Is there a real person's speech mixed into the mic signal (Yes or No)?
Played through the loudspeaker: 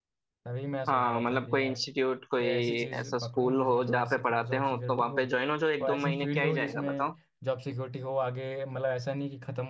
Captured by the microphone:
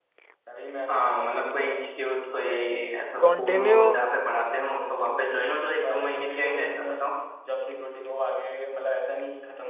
Yes